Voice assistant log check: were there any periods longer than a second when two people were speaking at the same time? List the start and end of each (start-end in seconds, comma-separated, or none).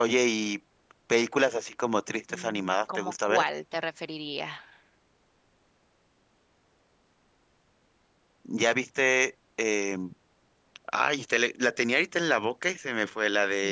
2.3-3.5